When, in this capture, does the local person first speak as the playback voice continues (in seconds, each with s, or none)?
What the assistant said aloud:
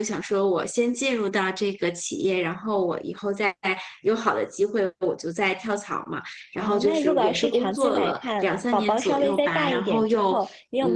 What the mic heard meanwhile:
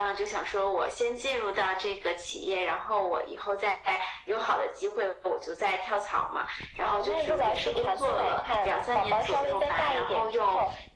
none